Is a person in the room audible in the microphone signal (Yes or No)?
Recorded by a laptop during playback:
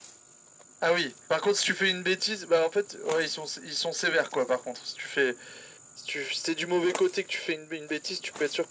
No